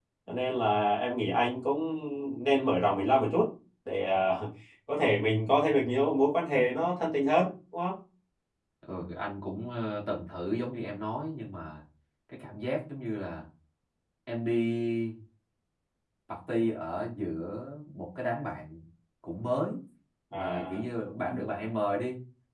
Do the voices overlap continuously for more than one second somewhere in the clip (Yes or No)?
No